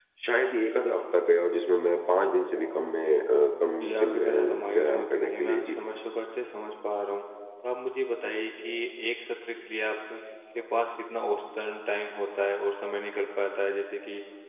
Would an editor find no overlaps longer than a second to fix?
No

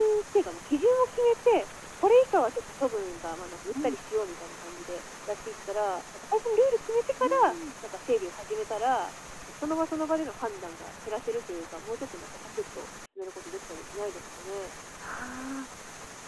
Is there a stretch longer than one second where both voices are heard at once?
No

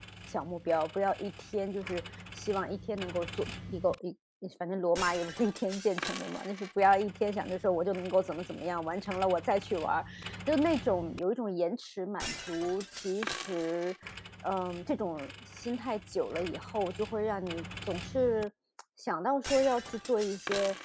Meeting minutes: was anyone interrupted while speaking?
No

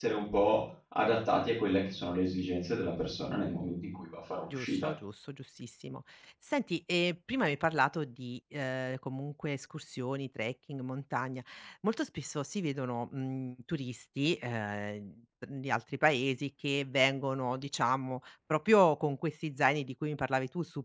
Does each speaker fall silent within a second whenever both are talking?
Yes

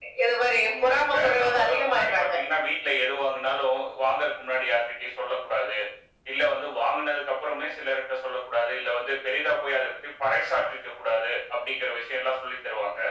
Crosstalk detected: Yes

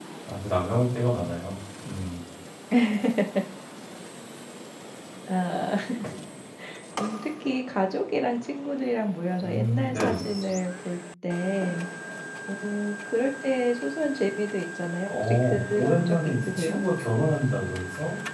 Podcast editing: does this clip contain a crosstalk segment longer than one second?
Yes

